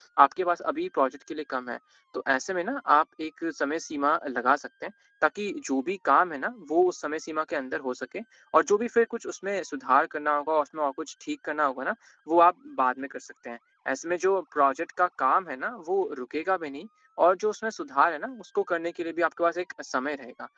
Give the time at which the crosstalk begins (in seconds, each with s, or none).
none